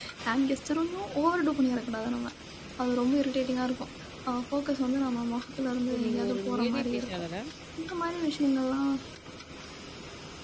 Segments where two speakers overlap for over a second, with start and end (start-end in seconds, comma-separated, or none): 5.9-7.2